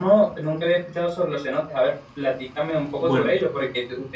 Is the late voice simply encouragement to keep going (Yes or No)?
Yes